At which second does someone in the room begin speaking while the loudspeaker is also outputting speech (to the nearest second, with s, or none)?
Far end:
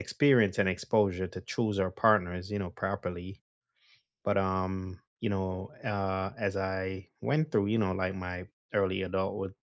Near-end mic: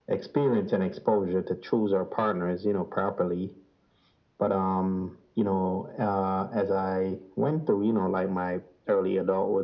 none